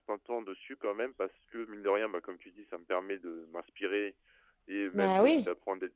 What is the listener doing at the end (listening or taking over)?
listening